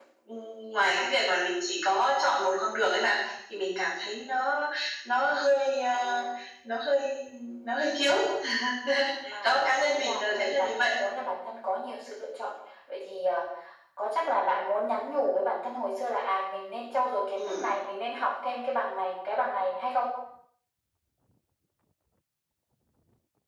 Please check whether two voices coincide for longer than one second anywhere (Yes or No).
Yes